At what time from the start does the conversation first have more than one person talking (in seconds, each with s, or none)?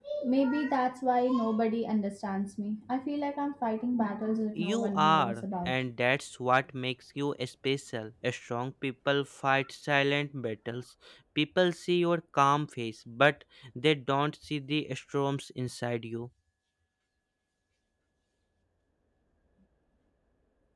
4.5 s